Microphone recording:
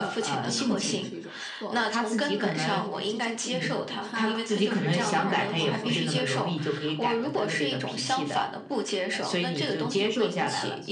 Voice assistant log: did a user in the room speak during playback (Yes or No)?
Yes